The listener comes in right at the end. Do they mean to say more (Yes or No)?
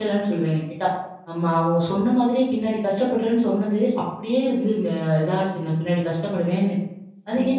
Yes